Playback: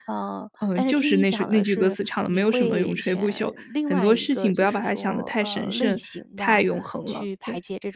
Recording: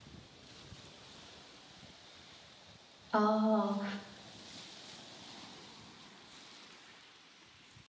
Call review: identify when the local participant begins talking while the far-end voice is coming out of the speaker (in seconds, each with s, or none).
3.1 s